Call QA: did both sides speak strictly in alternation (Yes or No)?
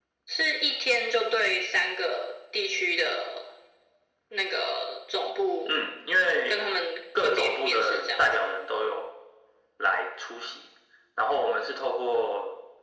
No